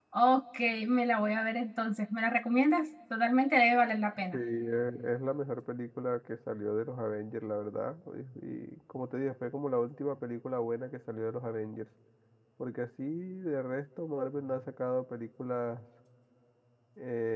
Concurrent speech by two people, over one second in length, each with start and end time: none

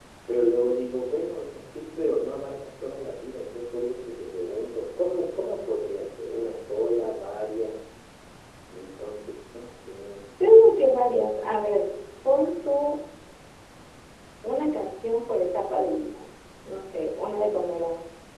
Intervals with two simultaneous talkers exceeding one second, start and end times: none

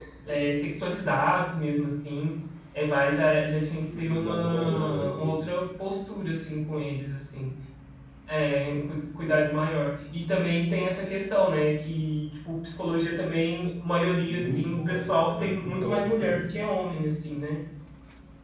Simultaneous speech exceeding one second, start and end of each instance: 4.0-5.5, 14.3-16.4

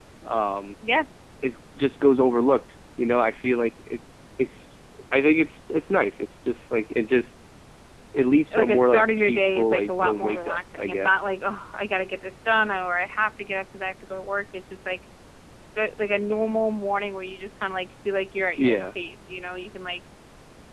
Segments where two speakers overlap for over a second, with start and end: 8.5-11.3

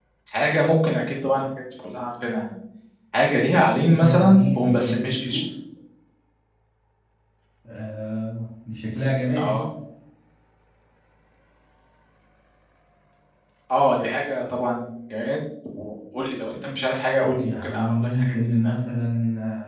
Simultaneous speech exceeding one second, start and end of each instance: 3.9-5.5, 17.2-18.7

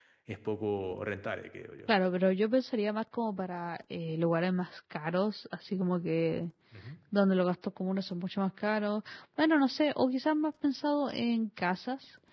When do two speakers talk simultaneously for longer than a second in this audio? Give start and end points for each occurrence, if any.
none

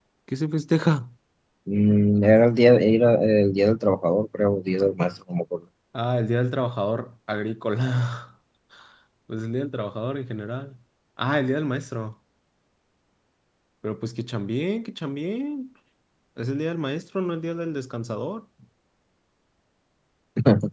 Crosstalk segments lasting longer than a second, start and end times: none

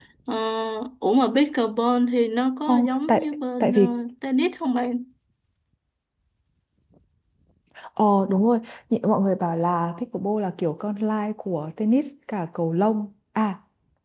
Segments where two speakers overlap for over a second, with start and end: 2.7-3.9

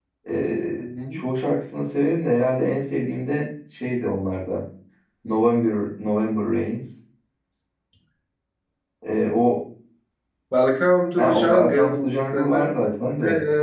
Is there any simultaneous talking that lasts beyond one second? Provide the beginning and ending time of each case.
11.2-12.9

